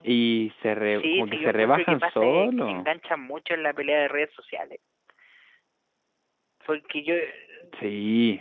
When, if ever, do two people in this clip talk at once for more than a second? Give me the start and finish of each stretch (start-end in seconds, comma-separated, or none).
0.9-2.9